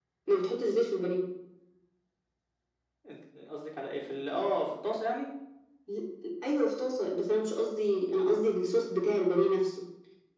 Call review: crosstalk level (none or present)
none